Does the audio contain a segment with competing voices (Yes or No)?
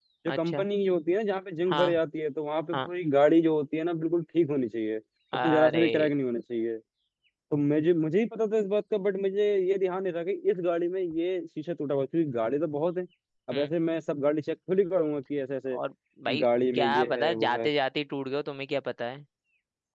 Yes